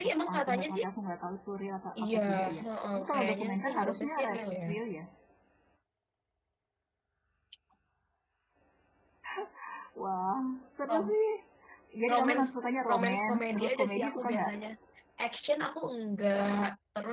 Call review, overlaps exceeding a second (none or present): present